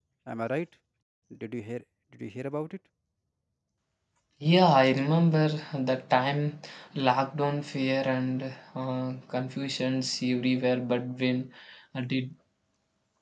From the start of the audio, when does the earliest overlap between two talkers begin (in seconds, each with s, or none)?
none